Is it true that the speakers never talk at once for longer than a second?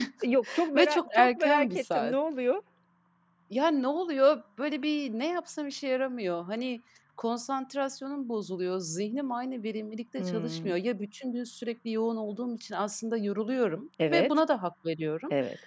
No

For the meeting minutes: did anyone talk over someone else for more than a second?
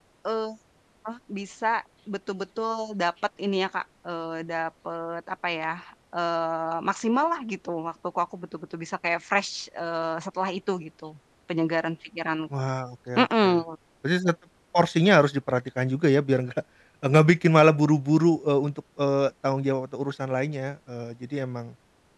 No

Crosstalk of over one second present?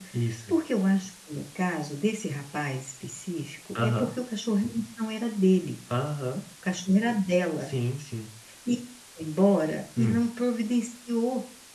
No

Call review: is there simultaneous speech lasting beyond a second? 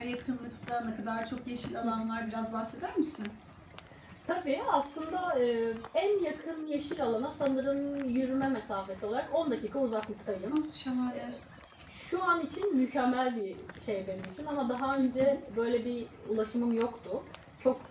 No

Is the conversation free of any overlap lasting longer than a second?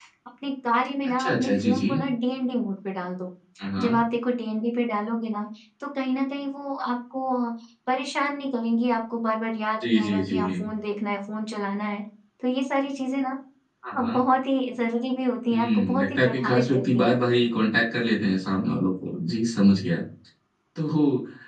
No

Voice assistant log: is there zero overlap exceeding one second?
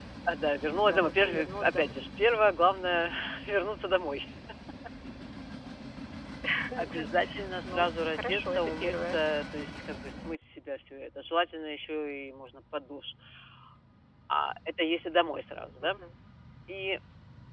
No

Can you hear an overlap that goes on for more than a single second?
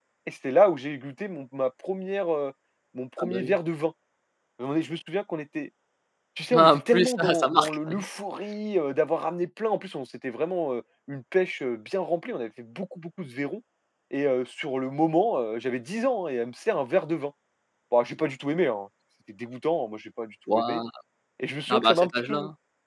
Yes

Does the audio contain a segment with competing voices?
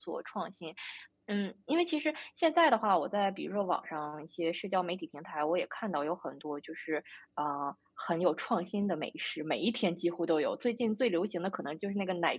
No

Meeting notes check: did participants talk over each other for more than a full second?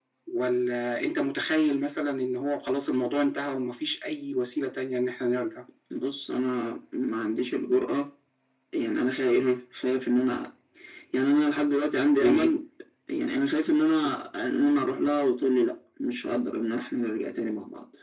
No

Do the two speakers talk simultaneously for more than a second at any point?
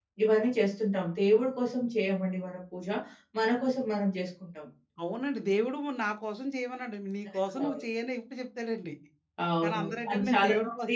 Yes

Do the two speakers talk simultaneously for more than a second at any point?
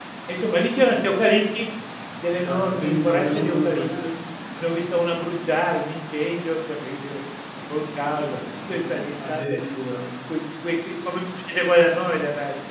Yes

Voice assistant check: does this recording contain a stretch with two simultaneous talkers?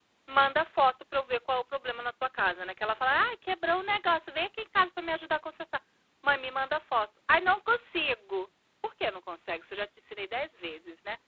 No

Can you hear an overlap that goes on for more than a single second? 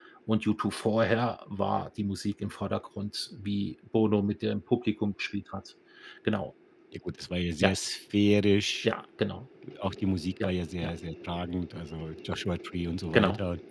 No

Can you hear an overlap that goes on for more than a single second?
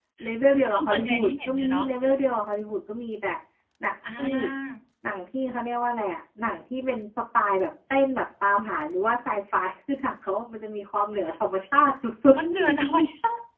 Yes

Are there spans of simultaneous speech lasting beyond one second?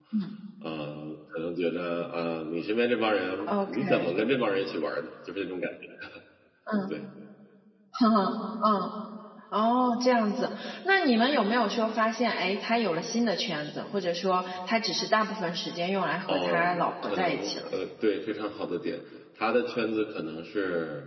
Yes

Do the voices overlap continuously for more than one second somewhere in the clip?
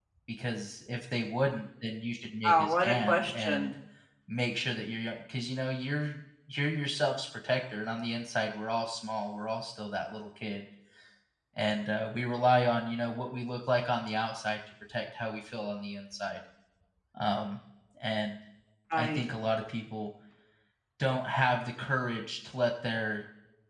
Yes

